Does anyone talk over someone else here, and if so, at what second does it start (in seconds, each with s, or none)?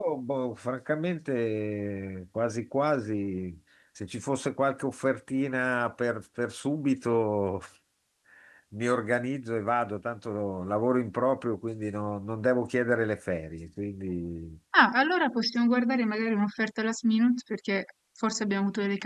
none